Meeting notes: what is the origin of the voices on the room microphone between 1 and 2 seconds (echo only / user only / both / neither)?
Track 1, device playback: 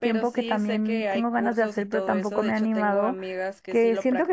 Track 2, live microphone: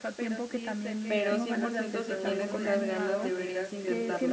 both